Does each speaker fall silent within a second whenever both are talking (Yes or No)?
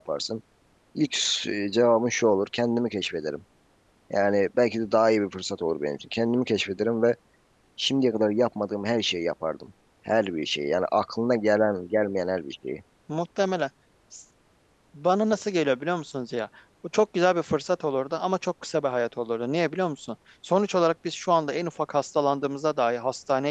Yes